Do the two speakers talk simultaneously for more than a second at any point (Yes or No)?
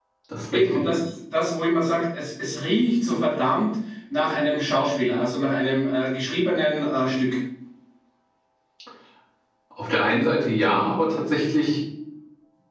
No